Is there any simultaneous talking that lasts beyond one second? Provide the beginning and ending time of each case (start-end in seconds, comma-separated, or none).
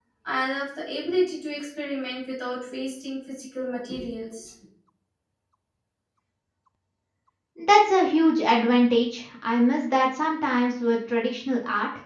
none